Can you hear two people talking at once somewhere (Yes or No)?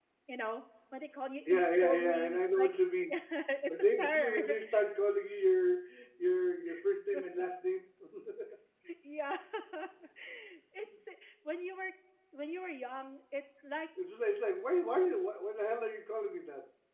Yes